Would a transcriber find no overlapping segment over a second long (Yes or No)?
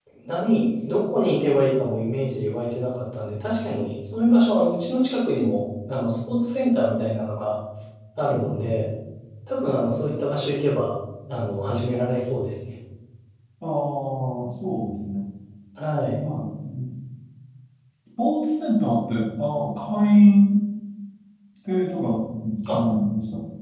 Yes